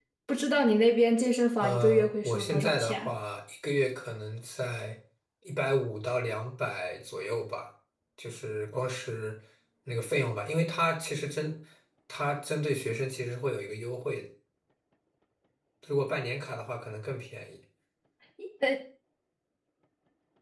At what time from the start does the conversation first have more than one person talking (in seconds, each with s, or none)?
1.6 s